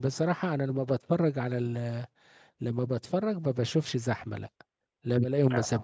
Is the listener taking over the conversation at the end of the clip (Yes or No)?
No